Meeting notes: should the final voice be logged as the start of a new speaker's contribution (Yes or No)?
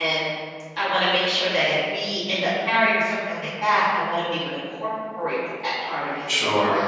Yes